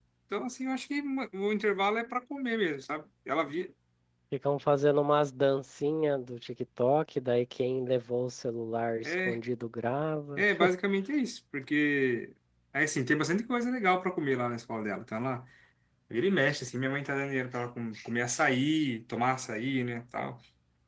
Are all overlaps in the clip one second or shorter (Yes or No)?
Yes